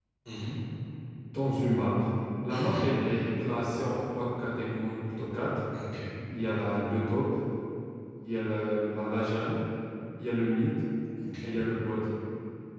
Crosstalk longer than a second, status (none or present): none